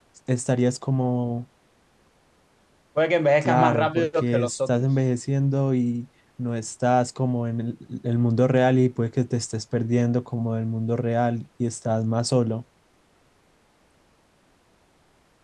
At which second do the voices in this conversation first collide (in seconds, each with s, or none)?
3.4 s